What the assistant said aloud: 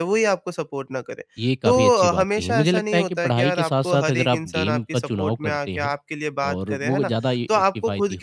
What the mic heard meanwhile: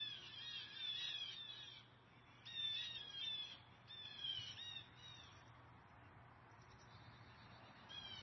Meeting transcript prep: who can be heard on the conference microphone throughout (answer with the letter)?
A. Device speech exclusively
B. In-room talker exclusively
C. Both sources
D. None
D